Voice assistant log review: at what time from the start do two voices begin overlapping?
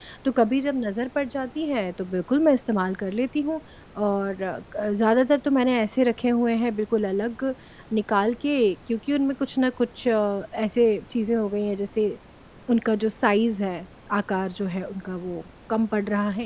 none

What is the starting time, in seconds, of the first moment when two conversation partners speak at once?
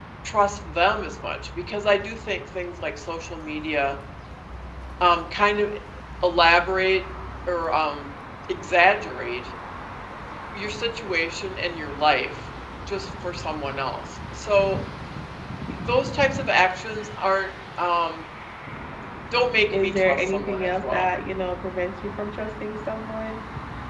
19.7 s

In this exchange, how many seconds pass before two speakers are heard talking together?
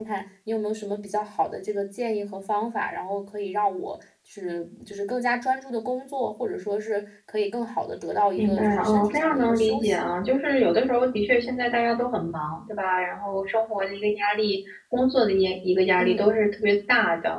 8.4 s

